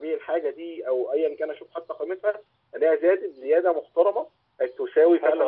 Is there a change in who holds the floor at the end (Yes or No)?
Yes